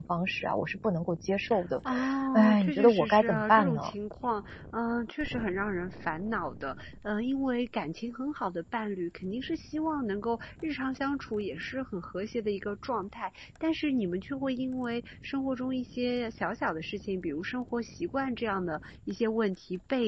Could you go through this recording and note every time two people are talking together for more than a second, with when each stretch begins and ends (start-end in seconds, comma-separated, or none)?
2.3-3.9